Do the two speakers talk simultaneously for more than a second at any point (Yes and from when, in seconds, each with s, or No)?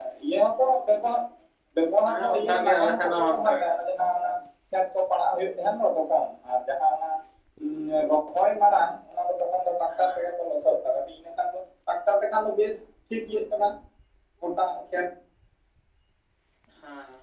Yes, from 2.1 s